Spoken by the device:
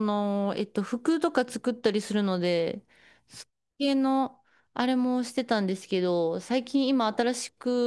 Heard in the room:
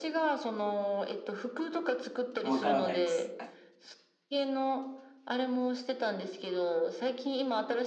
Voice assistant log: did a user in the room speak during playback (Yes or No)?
Yes